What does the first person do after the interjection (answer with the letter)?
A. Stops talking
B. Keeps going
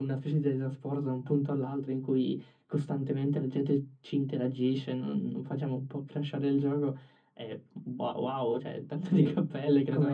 A